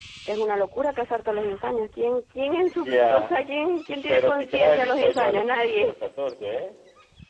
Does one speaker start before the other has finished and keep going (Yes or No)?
Yes